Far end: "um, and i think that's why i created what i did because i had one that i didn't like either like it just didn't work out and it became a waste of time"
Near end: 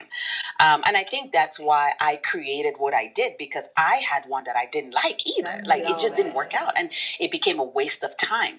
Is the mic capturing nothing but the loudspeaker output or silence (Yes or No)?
No